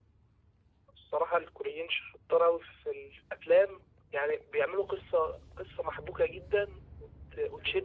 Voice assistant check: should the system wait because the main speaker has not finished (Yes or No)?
Yes